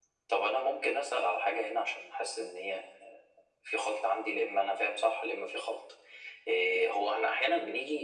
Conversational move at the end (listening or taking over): listening